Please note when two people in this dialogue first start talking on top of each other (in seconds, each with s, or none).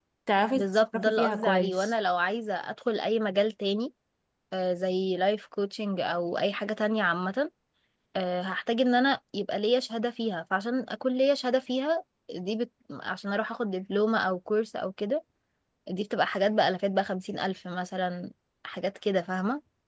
0.6 s